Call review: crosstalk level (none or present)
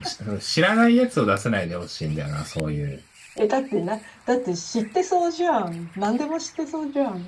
none